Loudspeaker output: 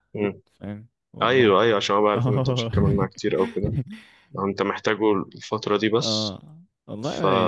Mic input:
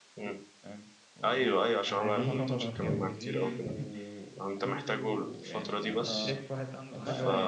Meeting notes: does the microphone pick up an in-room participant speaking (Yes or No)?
Yes